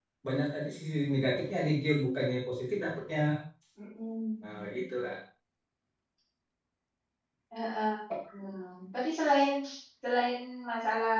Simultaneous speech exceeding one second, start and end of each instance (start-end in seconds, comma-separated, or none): none